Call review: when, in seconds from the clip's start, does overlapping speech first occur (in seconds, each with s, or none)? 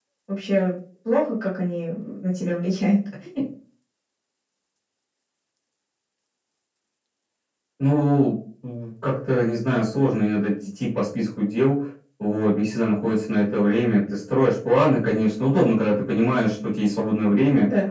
none